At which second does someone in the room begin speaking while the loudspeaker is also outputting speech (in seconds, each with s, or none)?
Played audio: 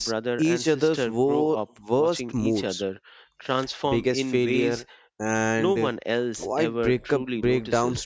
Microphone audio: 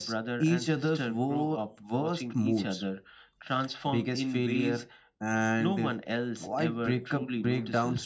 none